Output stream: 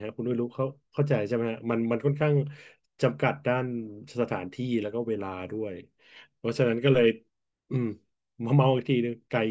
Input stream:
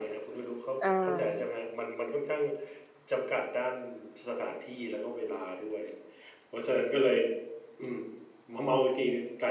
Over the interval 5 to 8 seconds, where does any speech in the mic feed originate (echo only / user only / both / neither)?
echo only